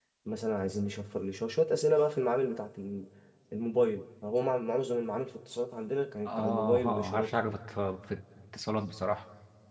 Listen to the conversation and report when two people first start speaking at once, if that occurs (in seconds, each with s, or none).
6.2 s